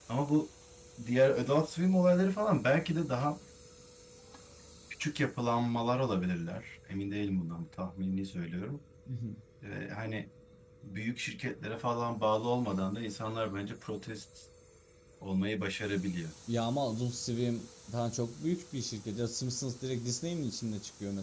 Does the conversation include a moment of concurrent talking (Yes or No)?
No